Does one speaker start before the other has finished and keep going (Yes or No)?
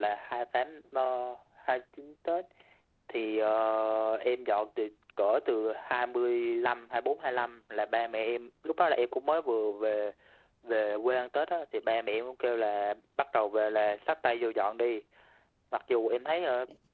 No